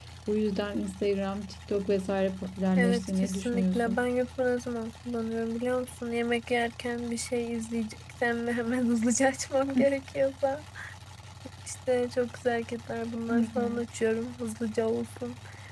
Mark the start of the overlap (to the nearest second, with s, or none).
3 s